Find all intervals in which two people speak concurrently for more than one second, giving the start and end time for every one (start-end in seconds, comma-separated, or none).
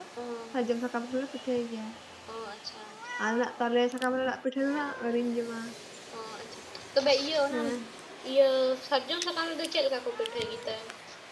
none